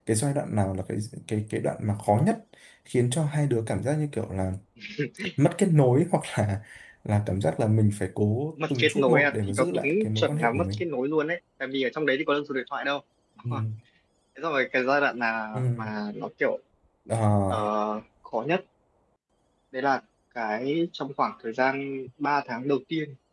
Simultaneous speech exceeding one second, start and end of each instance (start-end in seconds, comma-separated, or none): 8.7-10.8